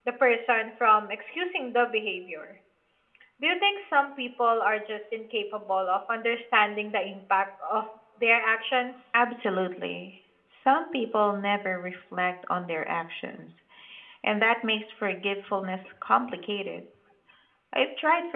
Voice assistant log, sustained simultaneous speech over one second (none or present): none